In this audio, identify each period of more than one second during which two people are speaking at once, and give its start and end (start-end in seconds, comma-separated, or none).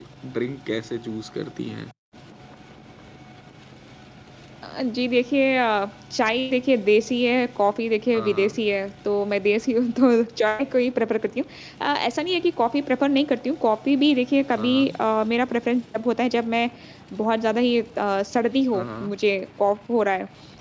none